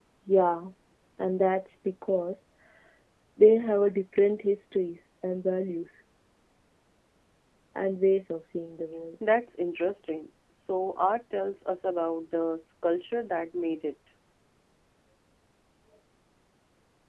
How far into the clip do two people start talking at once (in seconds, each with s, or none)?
none